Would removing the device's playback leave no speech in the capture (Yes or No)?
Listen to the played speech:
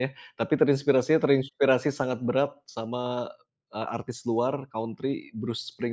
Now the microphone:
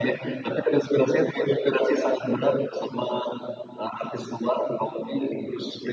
Yes